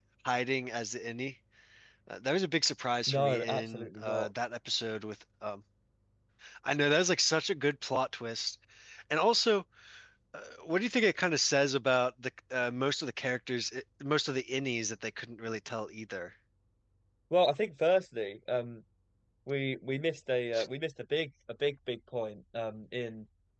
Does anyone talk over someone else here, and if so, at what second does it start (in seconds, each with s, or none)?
3.1 s